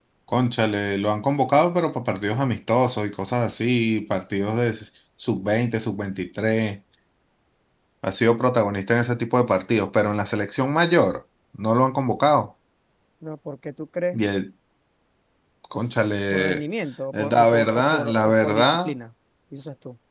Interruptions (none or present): present